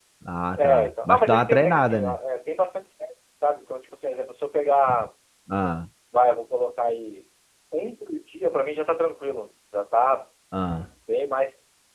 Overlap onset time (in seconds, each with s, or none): 0.6 s